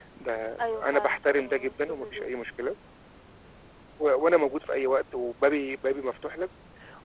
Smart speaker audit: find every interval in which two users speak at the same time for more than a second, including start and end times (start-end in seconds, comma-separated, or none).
0.6-2.4